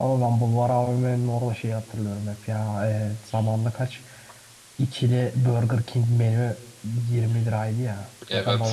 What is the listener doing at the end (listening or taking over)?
listening